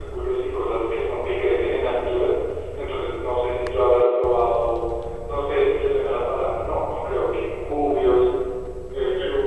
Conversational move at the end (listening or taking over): listening